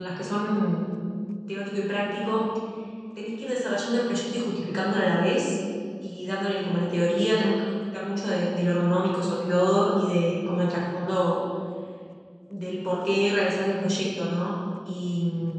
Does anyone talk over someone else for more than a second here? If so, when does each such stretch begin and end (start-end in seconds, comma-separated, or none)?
none